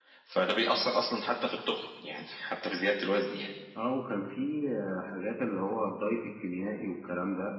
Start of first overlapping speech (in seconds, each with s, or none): none